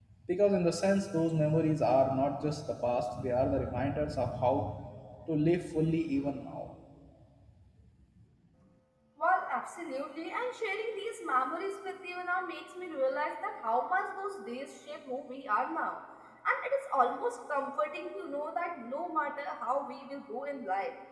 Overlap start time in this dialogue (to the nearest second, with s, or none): none